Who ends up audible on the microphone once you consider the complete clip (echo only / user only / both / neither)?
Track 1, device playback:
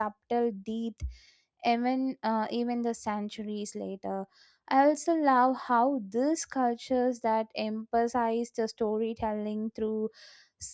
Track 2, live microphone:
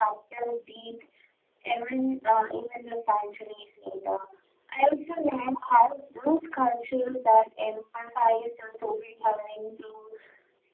echo only